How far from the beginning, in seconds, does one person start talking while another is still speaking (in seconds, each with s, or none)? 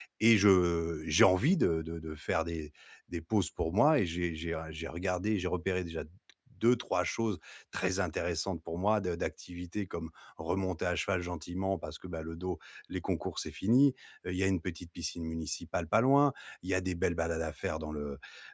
none